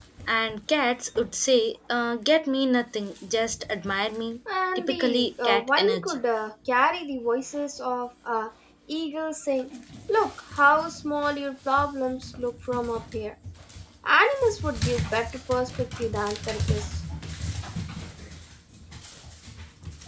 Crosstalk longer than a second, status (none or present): present